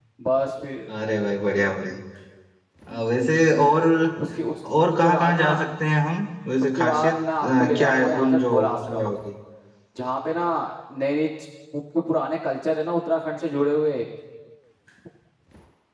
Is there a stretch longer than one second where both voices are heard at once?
Yes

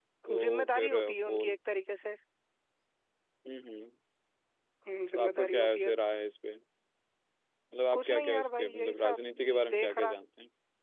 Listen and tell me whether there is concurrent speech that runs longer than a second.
Yes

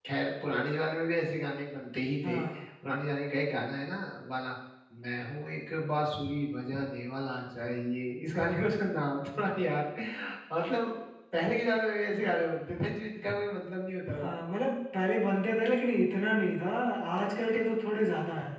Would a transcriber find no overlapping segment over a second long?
Yes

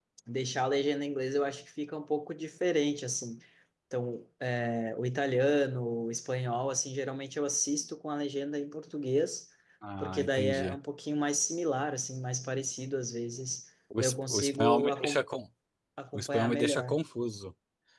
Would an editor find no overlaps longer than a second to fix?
No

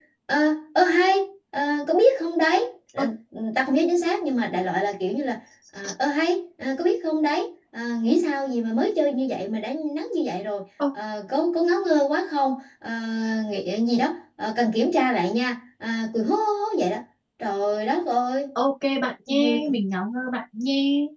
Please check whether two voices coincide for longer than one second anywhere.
No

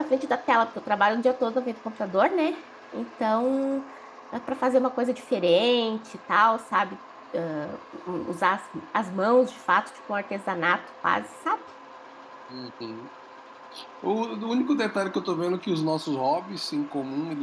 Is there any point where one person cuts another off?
No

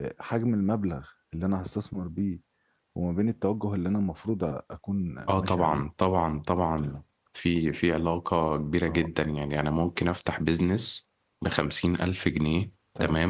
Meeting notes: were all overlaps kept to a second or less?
Yes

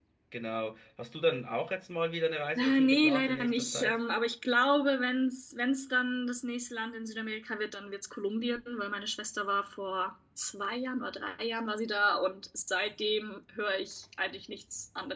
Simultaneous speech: Yes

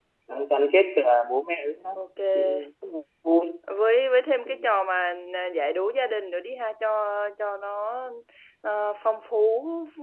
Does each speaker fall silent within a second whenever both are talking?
Yes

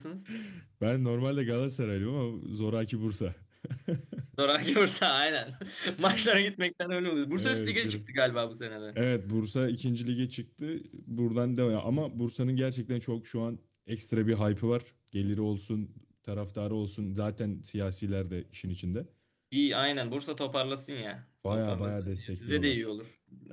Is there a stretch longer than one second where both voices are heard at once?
Yes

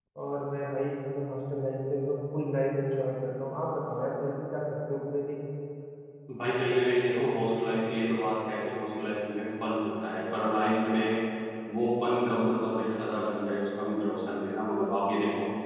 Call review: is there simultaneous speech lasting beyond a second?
No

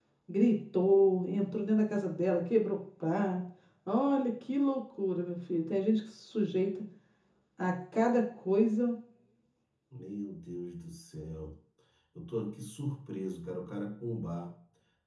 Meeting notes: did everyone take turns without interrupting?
Yes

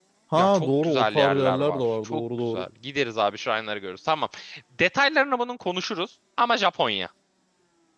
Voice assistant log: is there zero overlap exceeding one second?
No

